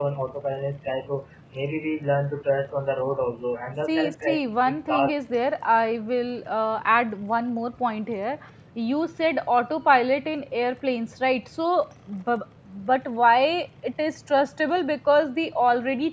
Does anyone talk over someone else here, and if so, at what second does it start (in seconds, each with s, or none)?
3.9 s